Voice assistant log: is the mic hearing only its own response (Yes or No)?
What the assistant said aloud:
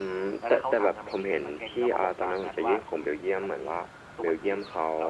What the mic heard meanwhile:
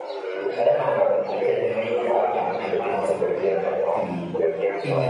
No